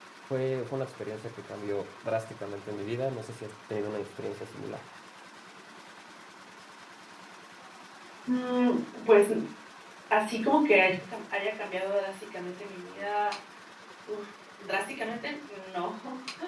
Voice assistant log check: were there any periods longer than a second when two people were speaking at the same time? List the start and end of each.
none

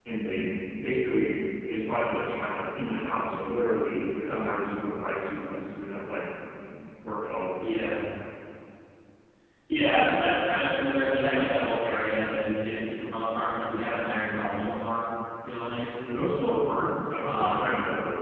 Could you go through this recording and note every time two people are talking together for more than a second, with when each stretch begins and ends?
none

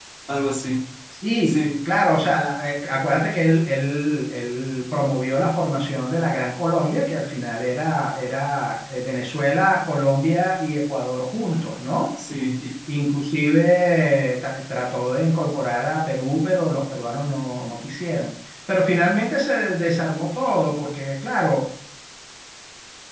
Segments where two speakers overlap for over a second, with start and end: none

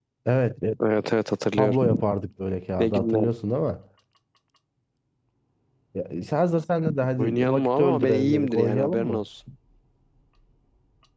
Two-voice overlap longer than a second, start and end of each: 7.2-9.2

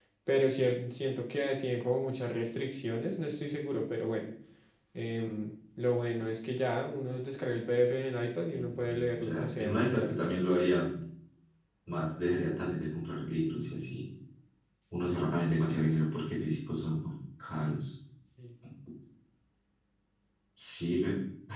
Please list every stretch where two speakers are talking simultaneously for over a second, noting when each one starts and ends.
8.4-10.2

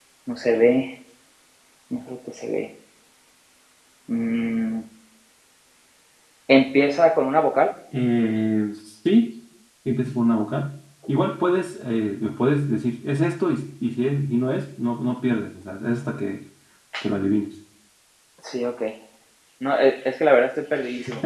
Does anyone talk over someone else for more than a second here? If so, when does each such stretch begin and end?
none

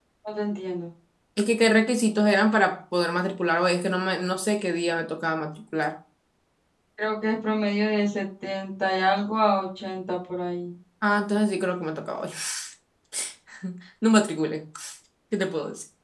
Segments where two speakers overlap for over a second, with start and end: none

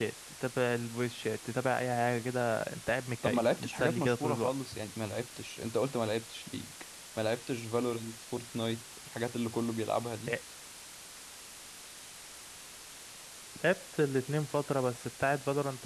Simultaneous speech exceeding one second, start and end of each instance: 3.2-4.5

